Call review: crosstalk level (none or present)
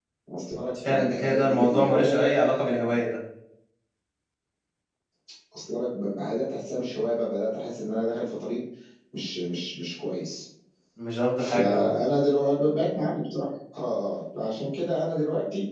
present